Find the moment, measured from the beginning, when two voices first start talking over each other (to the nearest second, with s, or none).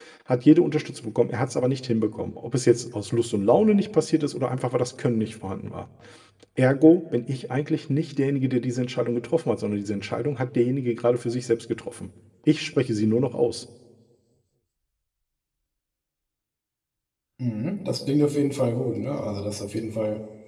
none